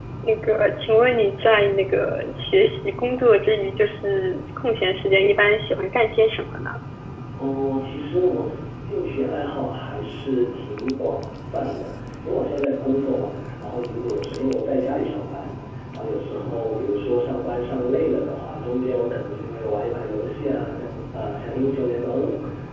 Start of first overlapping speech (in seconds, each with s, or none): none